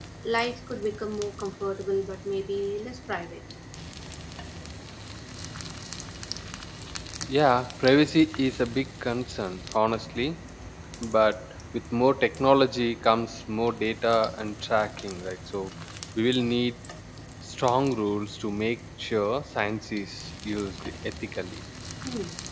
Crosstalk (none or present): none